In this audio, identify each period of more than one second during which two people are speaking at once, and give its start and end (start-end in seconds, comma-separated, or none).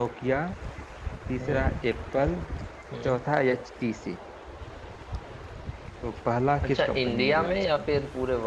6.6-7.8